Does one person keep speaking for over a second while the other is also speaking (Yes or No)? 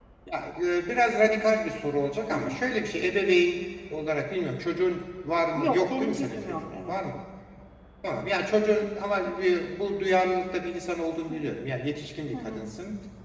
Yes